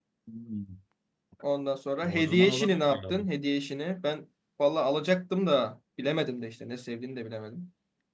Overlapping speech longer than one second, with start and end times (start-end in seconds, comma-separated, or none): 2.0-3.3